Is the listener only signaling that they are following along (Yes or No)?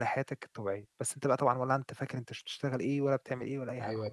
No